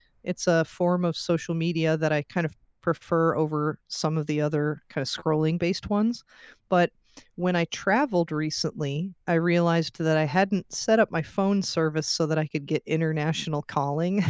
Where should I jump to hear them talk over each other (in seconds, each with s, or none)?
none